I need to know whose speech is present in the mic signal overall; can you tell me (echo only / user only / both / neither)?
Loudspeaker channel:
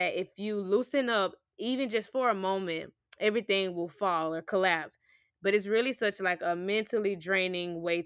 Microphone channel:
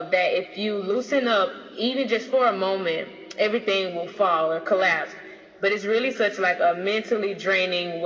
echo only